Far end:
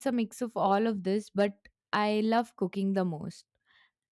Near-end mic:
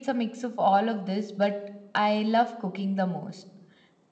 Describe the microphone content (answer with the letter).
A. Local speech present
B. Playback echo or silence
B